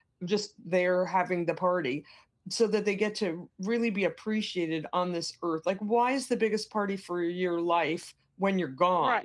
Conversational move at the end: taking over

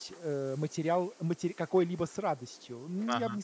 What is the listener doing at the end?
listening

